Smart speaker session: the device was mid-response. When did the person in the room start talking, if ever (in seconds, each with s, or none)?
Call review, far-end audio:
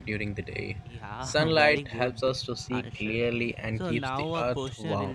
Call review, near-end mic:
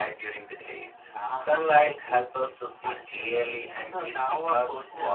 none